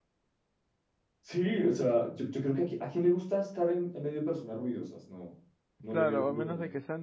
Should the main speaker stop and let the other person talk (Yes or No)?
Yes